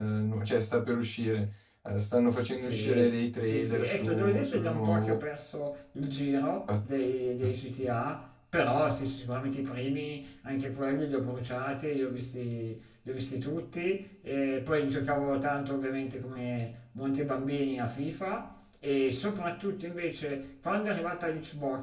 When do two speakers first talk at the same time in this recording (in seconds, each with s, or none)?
2.5 s